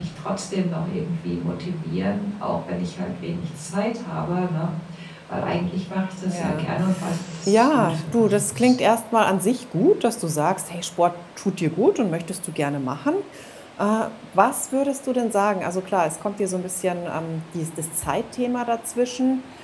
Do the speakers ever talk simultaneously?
Yes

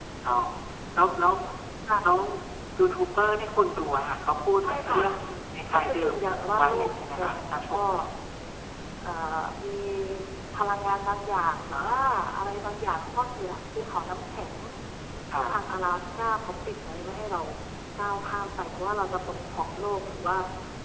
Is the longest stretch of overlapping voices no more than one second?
No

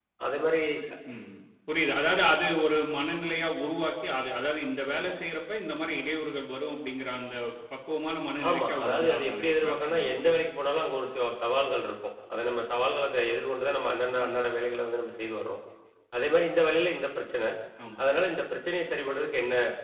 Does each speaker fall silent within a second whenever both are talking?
No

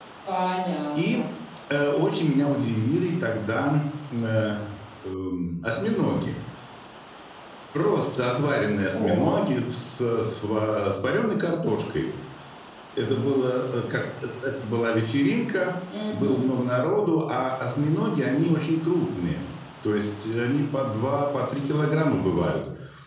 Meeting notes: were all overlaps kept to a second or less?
Yes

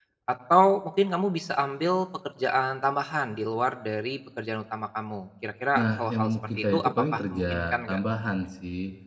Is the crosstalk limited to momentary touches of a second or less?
No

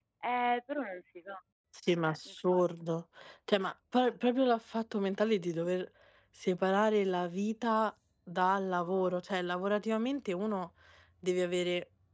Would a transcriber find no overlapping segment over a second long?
Yes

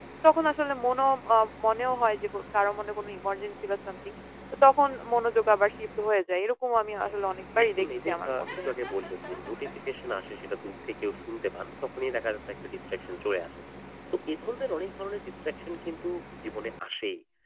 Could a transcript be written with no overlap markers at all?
No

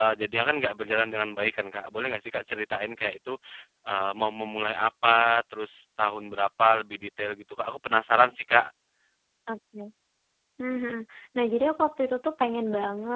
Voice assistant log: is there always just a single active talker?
Yes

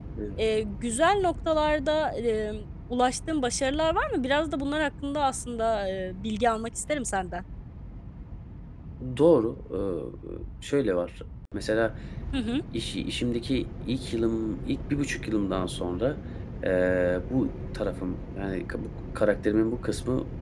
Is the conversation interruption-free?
Yes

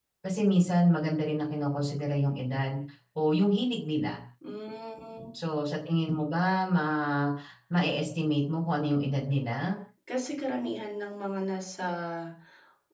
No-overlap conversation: Yes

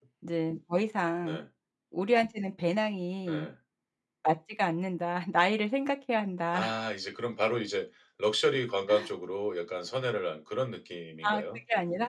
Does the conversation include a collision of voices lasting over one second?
No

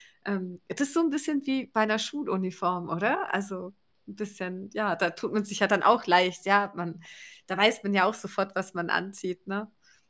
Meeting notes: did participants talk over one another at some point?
No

